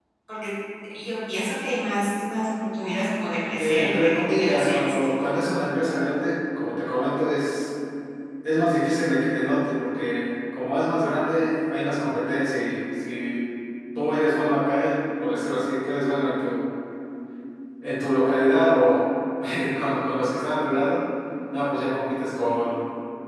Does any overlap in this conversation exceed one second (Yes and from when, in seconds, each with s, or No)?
Yes, from 3.6 s